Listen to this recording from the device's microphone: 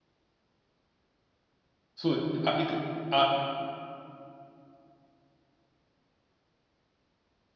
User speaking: Yes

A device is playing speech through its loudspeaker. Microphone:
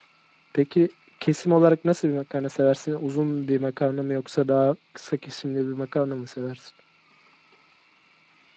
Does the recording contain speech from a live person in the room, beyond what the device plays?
Yes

